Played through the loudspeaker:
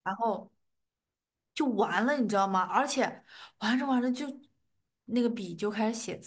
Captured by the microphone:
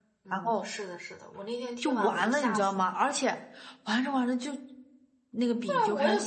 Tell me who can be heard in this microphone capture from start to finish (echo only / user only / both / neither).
both